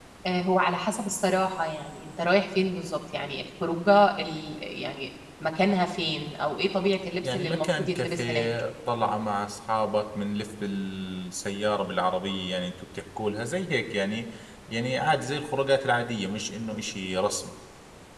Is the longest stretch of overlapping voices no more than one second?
No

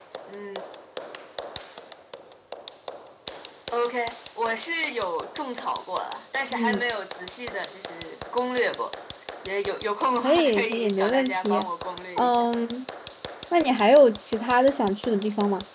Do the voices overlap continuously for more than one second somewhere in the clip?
Yes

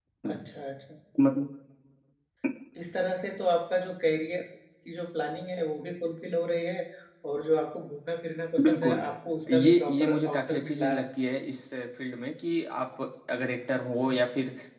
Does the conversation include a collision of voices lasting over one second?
Yes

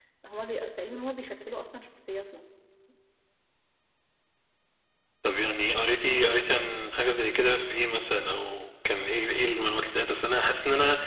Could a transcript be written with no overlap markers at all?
Yes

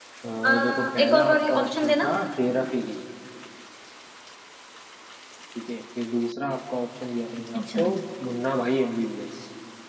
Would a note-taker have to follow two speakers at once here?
Yes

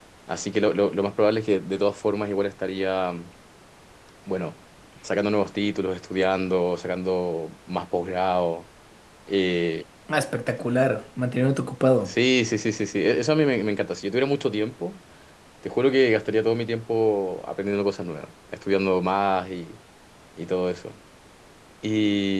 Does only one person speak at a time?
Yes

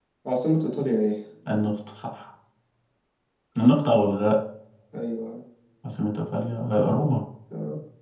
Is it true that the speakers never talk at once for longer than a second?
Yes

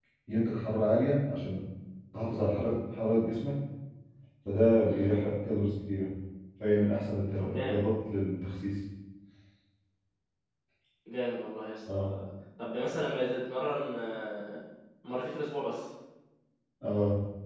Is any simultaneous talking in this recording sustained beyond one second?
No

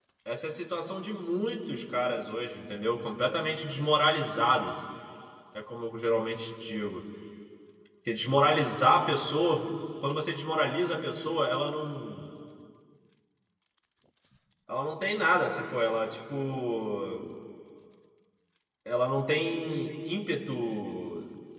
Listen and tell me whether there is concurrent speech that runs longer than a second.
No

